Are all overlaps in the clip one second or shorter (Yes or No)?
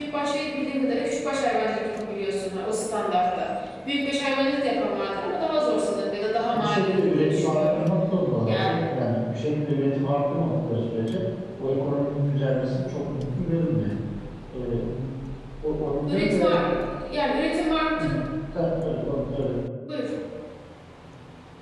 No